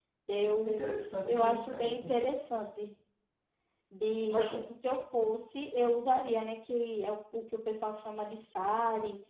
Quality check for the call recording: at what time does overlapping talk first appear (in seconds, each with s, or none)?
0.7 s